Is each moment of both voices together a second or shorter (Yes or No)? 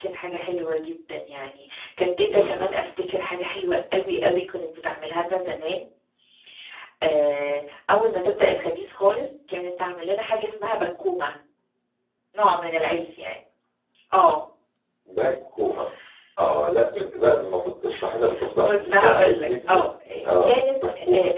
No